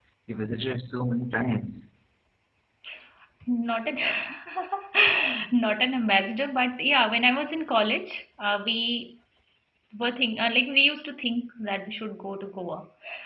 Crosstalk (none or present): none